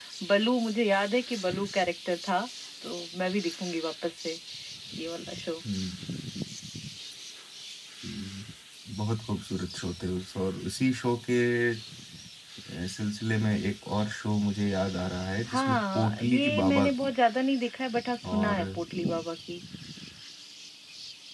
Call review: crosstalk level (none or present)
present